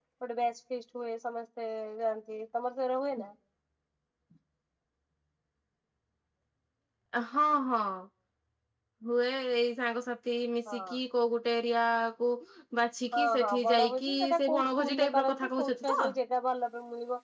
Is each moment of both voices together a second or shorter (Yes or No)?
No